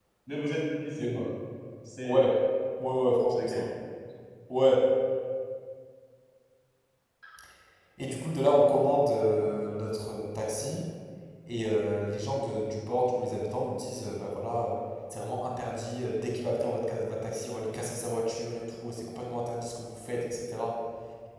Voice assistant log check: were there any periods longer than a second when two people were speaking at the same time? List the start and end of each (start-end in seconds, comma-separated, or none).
none